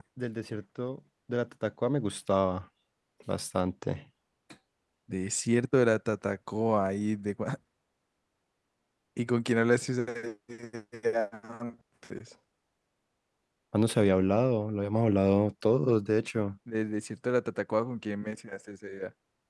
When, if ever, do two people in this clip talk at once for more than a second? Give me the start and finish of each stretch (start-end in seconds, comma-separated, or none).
none